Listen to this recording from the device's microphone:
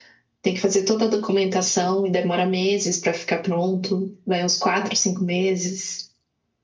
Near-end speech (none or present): none